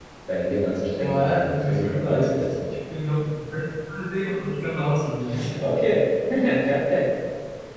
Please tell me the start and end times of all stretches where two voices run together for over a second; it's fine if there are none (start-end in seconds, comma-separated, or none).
1.0-2.6